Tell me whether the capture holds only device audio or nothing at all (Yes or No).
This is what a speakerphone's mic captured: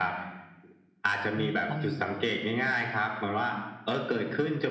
No